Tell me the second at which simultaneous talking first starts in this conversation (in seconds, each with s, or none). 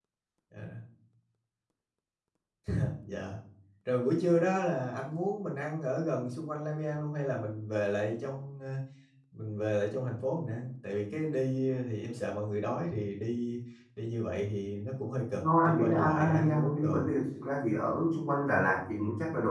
15.4 s